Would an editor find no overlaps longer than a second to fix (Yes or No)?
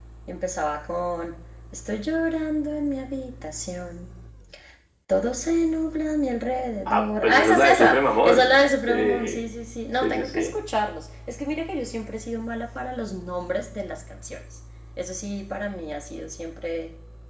No